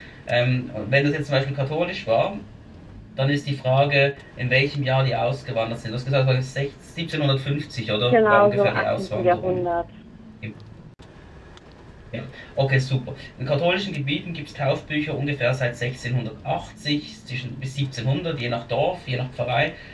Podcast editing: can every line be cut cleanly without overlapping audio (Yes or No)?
No